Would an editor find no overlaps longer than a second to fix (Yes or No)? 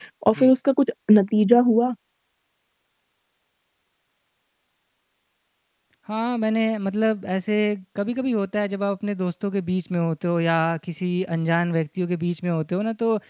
Yes